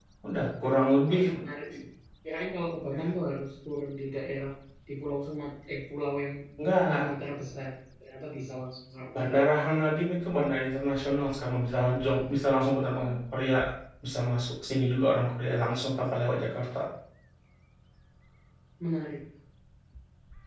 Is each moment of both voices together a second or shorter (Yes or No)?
Yes